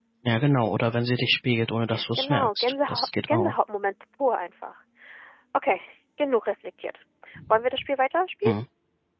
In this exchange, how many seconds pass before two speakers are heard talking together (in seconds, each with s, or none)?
2.2 s